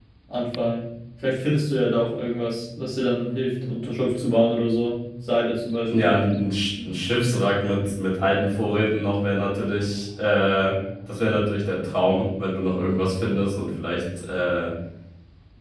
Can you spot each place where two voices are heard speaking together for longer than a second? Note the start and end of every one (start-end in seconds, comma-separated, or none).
none